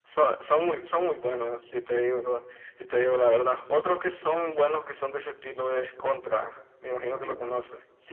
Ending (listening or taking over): taking over